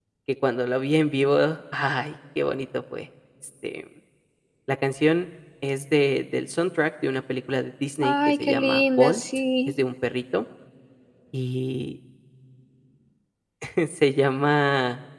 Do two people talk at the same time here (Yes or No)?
Yes